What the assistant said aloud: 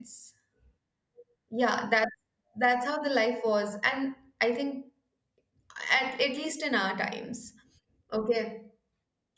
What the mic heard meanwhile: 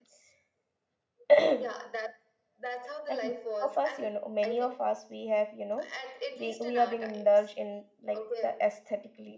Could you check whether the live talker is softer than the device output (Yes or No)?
No